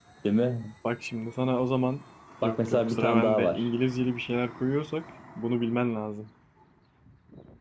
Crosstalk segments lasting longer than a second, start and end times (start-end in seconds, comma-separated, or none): 2.4-3.7